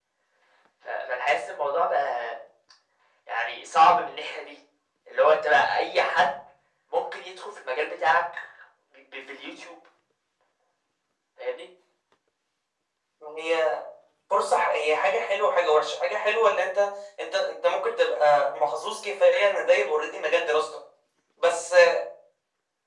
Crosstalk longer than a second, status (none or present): none